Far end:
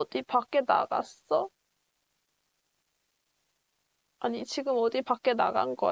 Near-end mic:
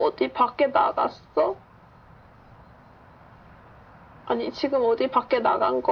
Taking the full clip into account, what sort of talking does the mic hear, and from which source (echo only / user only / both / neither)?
echo only